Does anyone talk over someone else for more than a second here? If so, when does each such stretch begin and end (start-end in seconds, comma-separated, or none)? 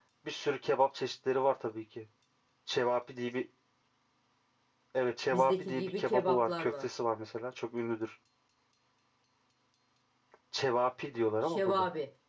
5.3-6.9